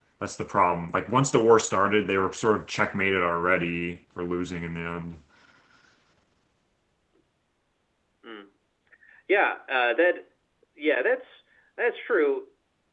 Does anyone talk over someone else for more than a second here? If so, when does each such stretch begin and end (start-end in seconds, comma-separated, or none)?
none